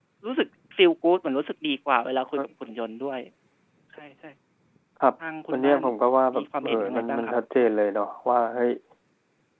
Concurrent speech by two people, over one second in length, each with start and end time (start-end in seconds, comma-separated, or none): 6.3-7.7